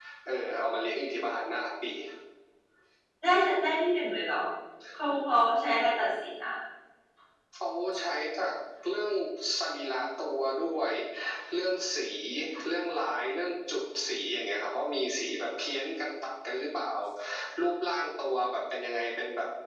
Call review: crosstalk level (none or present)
none